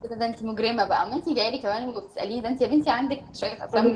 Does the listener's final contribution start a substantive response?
Yes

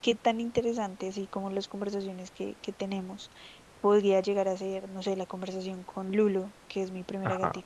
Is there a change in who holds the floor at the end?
No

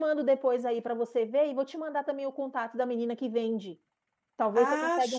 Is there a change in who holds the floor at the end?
Yes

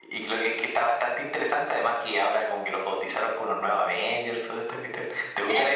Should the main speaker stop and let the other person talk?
Yes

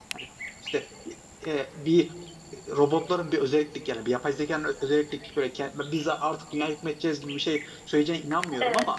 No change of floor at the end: Yes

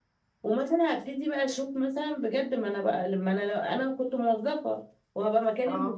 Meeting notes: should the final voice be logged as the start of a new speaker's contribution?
No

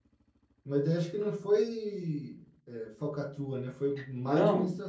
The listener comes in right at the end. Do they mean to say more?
Yes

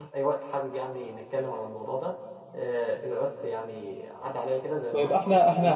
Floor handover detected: Yes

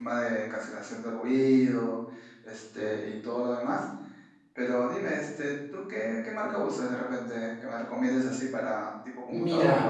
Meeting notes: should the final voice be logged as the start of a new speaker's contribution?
Yes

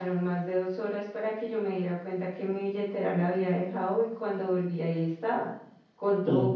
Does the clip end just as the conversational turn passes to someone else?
No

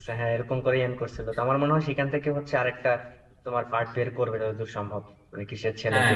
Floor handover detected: Yes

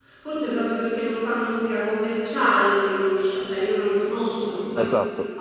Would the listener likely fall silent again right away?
Yes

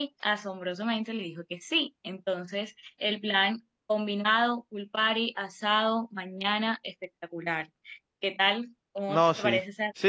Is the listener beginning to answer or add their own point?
Yes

